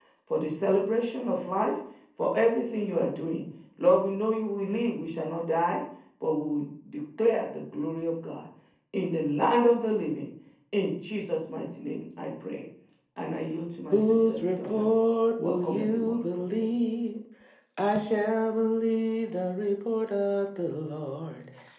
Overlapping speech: Yes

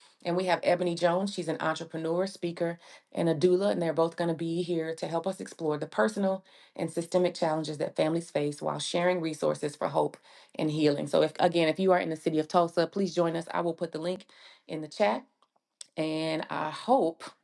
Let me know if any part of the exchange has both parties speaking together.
No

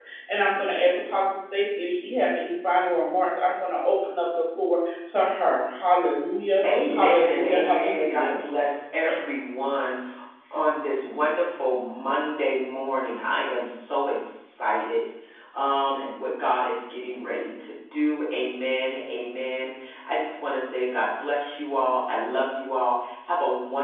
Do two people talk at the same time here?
Yes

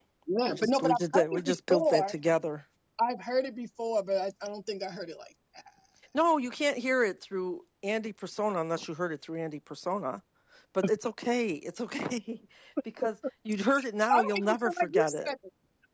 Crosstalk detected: Yes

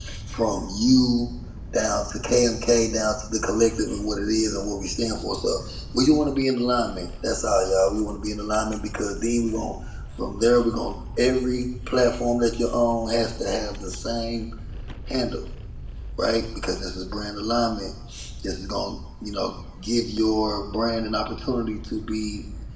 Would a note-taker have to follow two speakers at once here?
No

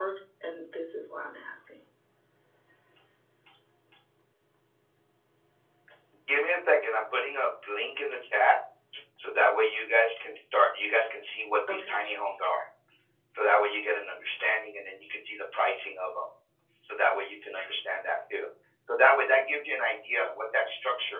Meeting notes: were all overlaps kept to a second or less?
Yes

